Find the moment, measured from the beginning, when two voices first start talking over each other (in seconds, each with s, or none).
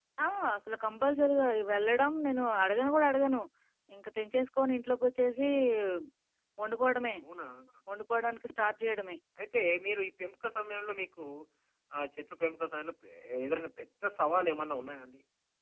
none